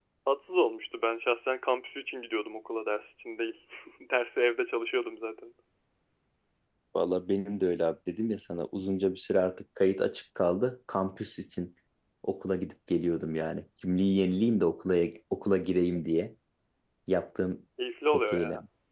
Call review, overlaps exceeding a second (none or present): none